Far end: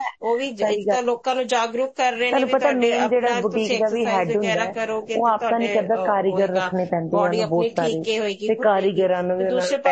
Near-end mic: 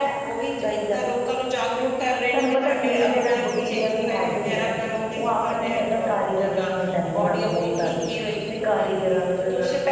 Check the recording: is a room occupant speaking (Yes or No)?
No